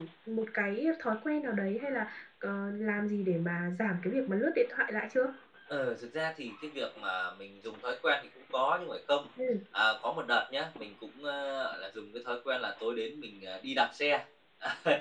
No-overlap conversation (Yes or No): Yes